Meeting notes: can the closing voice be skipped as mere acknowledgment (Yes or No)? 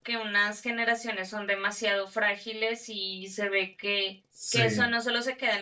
Yes